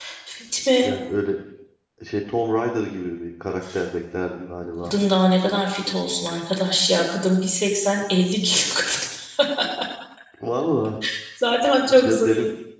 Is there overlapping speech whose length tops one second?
No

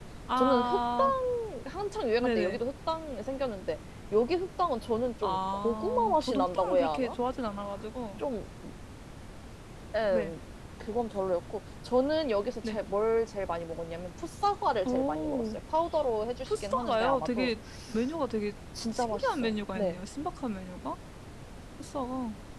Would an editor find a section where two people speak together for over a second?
Yes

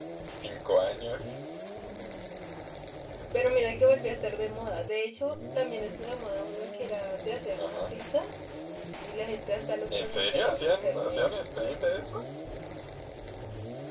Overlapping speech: Yes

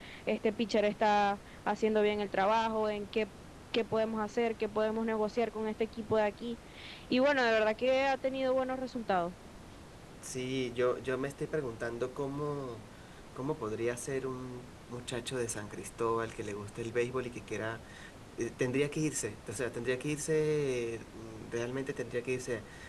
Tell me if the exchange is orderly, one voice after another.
Yes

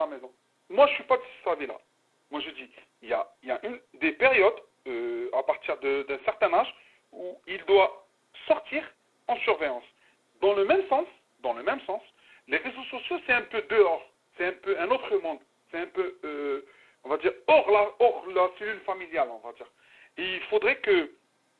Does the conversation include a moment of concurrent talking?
No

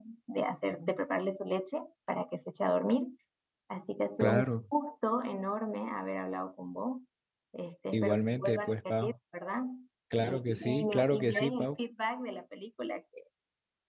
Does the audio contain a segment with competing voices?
Yes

